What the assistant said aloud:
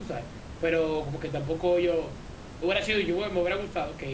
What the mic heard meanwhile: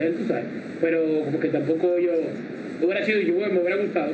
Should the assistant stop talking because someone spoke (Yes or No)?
No